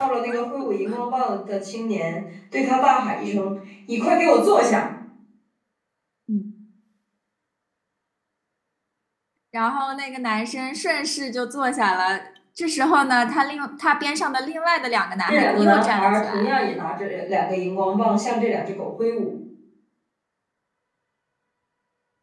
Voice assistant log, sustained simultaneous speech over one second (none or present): present